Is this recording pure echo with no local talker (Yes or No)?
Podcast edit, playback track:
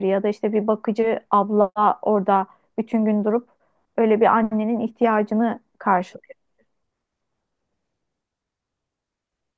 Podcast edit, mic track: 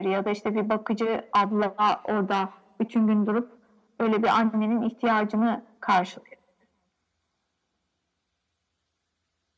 Yes